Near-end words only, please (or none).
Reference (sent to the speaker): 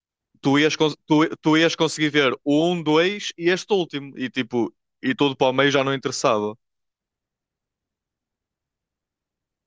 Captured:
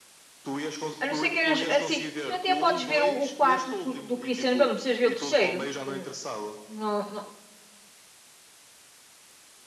A não ser que eras assim, tu até podes ver o, o quarto cu- do Cristiano Belo, não precisas ver o terceiro. que Não, não,